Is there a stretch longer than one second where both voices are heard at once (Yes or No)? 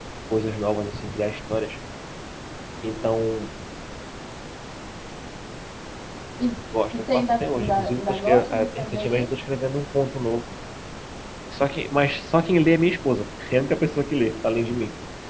Yes